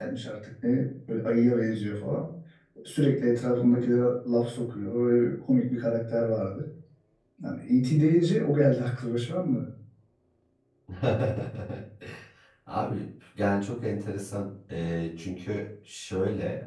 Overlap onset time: none

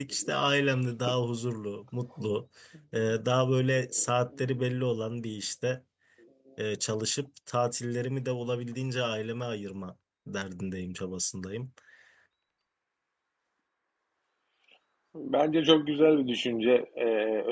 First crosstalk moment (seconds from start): none

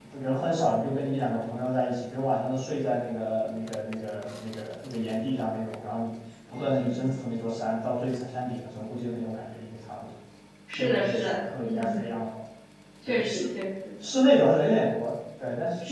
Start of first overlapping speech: 10.8 s

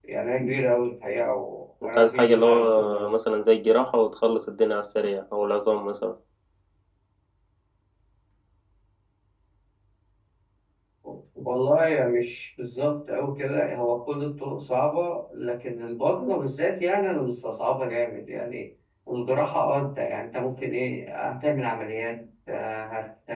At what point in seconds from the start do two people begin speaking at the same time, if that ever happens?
1.8 s

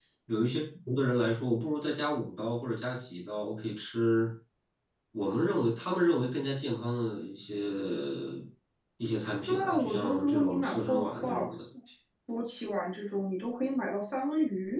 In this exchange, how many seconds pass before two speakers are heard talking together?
9.5 s

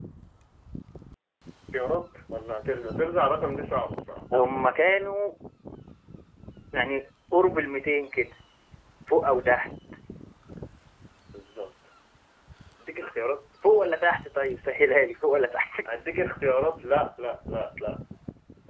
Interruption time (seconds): none

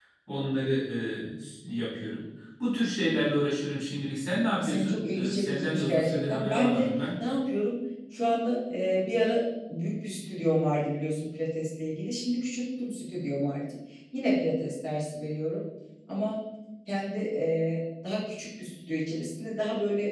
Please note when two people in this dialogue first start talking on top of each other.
4.5 s

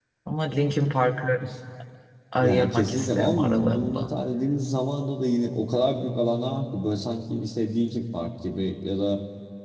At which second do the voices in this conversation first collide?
2.4 s

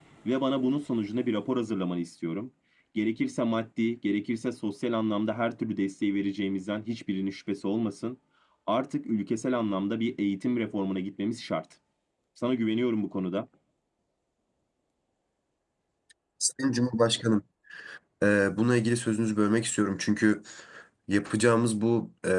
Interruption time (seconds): none

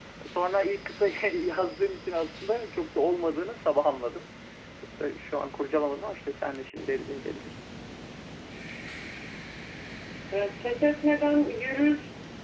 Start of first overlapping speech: none

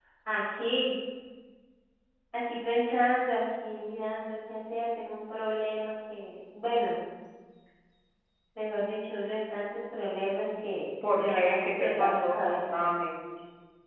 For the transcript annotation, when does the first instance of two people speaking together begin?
11.0 s

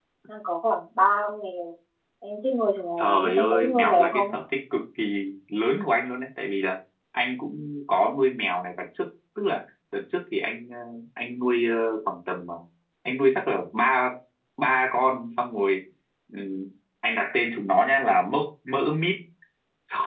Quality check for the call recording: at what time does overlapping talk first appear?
3.0 s

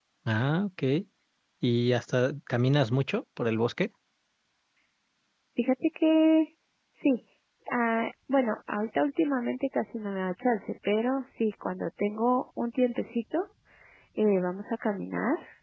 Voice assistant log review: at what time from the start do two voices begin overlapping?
none

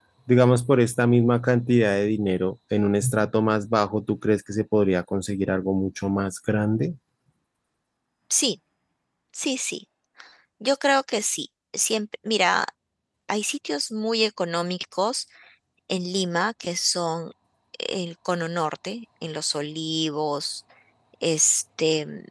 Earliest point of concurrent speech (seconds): none

